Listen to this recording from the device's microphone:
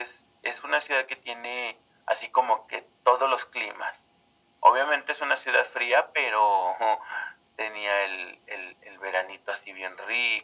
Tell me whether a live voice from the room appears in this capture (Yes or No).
No